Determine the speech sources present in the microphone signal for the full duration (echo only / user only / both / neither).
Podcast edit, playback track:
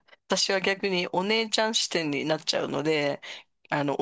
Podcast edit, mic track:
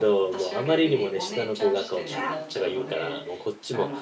both